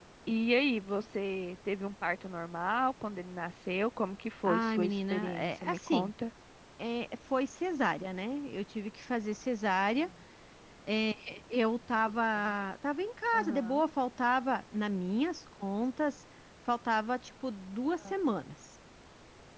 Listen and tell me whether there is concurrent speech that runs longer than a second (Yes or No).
Yes